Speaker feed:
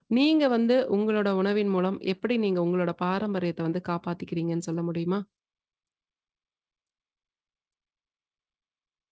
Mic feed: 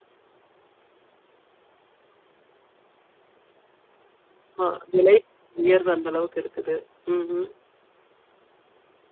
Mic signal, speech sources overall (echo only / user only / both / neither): user only